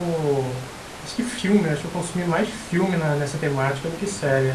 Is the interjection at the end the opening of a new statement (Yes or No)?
Yes